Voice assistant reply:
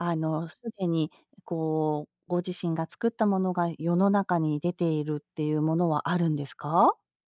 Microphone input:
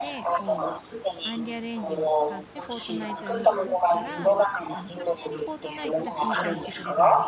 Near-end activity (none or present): present